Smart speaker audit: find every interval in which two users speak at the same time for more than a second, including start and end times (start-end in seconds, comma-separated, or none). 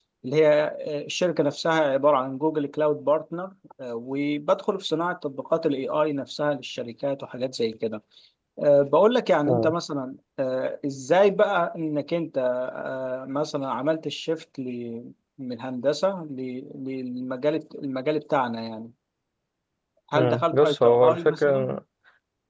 20.2-21.7